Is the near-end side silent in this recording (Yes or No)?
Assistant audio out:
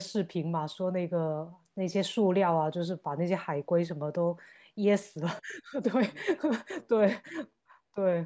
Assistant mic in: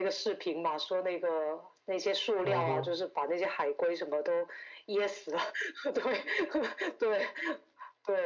No